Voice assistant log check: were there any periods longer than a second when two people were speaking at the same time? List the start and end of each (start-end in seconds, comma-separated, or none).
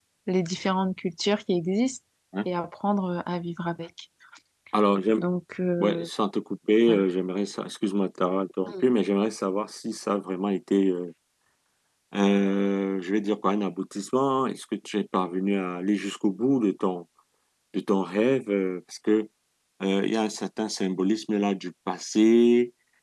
none